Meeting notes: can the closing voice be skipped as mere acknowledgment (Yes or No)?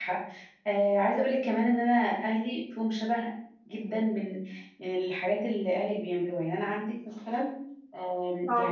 Yes